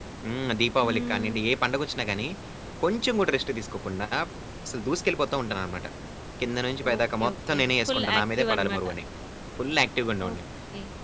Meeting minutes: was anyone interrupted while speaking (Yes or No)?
Yes